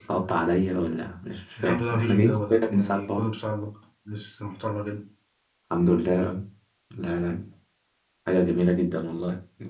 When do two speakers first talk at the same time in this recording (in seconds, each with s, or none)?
1.6 s